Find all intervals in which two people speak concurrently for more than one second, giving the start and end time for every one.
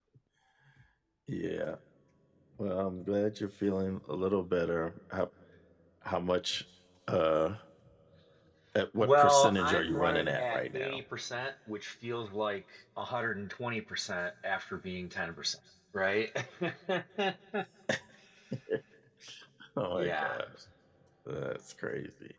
9.0-11.0

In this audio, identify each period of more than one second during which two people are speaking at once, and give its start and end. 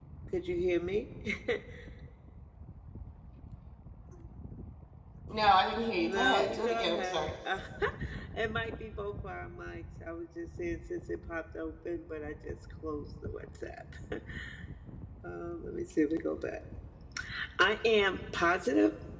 6.1-7.3

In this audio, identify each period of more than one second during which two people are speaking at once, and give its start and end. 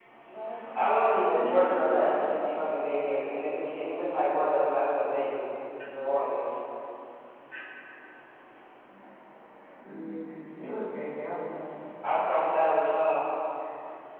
0.7-2.3

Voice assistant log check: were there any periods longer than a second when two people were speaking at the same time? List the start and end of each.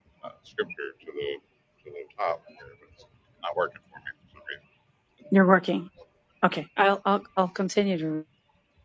none

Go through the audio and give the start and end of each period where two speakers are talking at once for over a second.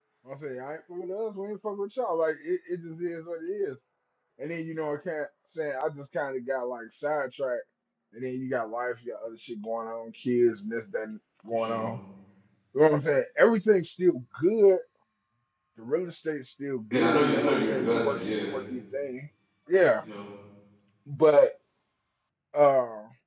16.9-18.3

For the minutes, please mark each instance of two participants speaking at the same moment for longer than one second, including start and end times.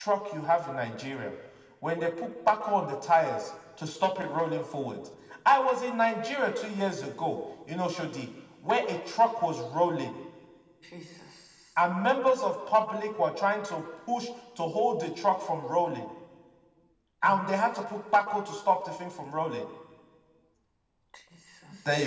none

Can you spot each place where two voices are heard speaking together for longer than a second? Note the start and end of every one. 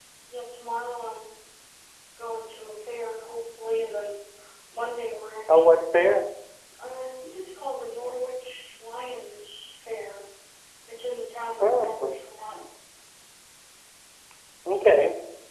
none

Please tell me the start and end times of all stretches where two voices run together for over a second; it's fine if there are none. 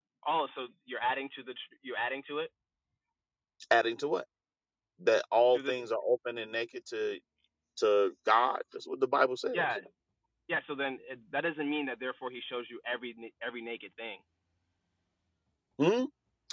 none

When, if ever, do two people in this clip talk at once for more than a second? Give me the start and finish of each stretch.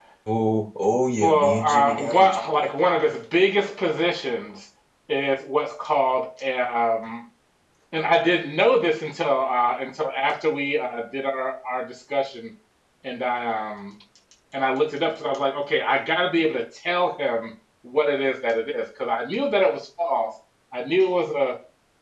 1.2-2.6

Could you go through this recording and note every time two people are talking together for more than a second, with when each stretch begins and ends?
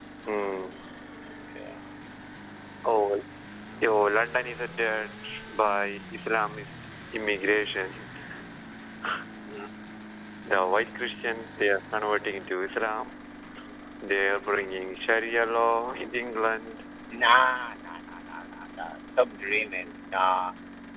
none

